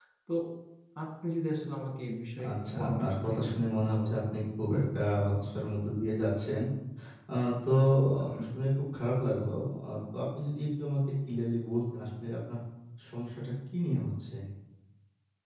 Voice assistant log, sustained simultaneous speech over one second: present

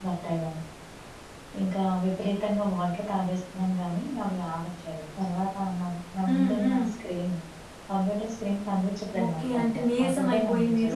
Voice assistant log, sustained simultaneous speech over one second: present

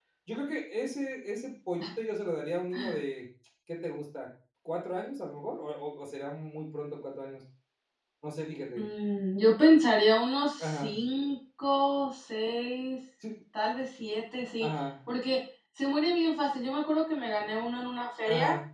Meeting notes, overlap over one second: none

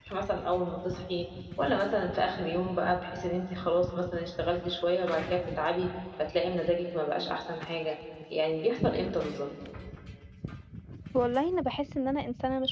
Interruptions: none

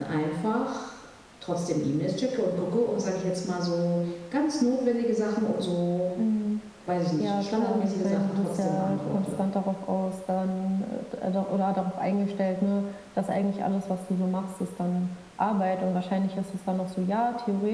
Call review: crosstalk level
present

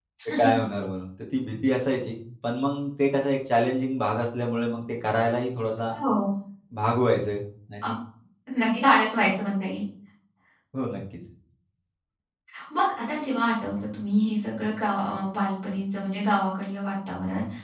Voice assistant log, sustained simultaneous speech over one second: none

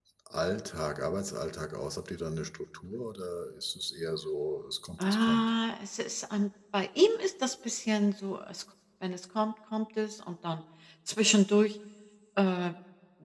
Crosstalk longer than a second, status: none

